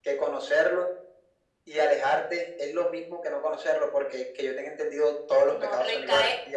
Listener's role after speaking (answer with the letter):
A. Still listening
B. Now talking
B